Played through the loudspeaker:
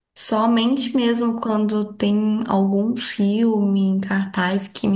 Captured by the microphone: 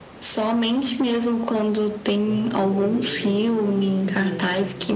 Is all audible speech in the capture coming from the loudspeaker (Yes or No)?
No